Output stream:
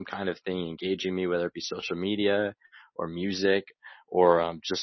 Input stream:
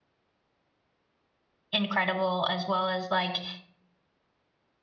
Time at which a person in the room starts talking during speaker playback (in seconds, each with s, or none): 1.7 s